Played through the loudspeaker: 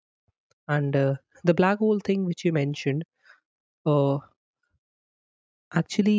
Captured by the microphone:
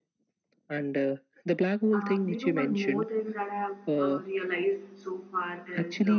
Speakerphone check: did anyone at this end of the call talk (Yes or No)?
Yes